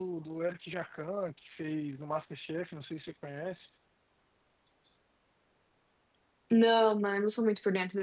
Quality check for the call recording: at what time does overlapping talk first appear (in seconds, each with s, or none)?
none